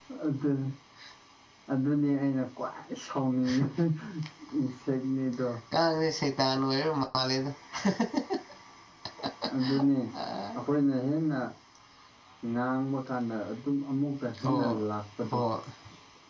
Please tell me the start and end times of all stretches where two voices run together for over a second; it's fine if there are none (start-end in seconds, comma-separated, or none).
none